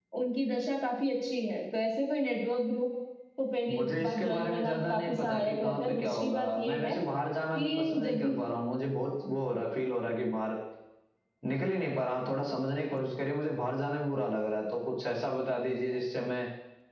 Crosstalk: present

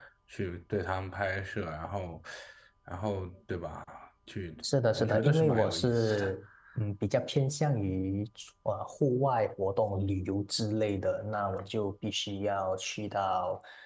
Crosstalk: present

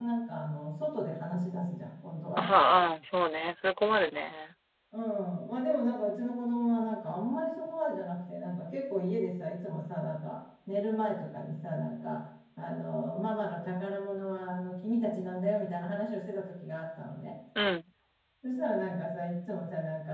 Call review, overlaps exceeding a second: none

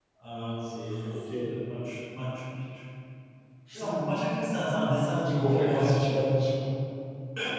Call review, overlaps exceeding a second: present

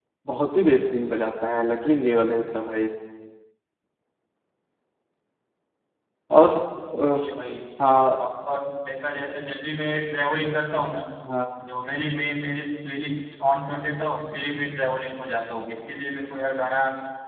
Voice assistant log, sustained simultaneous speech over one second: none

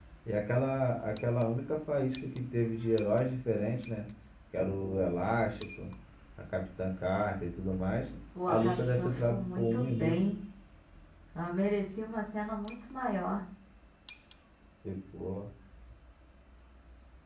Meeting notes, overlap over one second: present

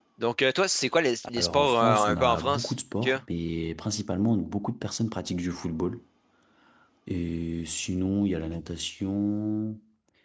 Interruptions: present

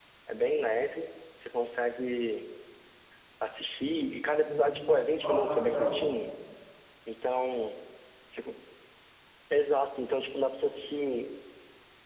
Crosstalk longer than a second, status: present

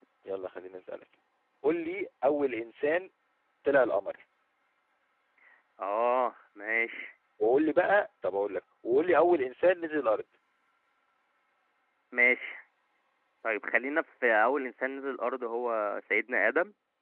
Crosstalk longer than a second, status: none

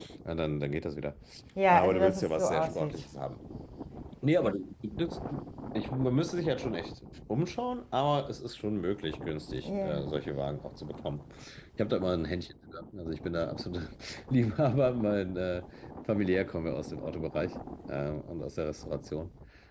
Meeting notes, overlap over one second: present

